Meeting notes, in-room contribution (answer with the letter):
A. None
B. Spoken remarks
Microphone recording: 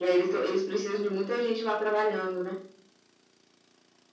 A